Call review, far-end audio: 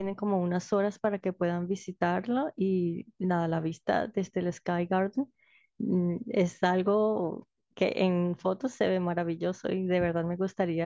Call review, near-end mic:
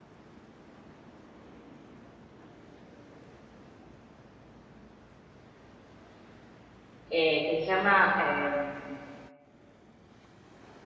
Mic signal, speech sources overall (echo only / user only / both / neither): user only